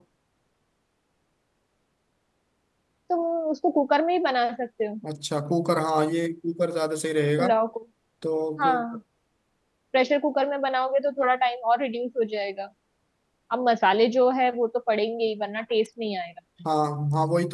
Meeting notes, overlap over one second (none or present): none